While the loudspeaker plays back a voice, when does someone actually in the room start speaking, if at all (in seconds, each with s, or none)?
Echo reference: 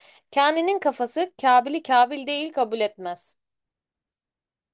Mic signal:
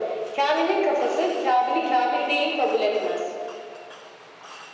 none